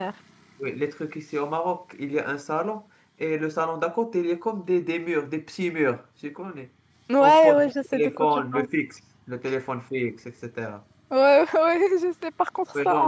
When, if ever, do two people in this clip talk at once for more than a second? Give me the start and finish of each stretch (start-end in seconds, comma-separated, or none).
7.2-8.7